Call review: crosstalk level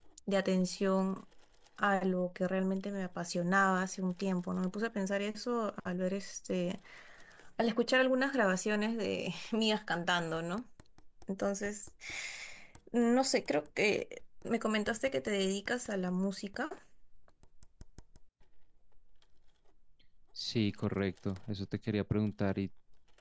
none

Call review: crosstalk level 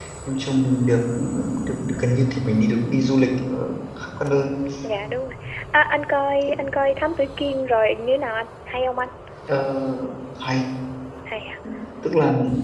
none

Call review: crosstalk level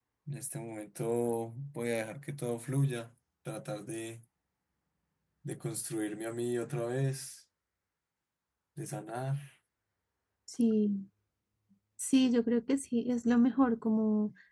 none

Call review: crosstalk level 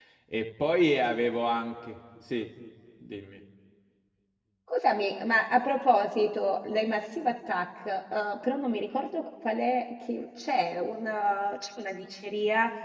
none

